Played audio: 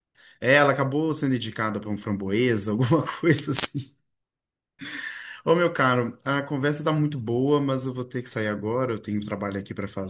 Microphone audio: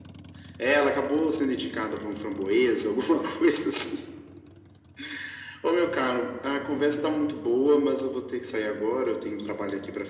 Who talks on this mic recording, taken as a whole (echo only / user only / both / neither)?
echo only